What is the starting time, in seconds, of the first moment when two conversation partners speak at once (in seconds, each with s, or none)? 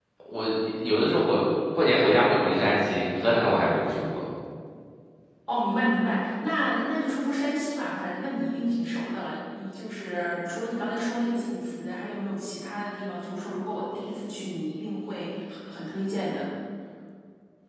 none